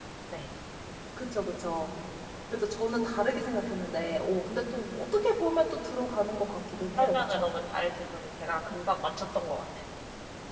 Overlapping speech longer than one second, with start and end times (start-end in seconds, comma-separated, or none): none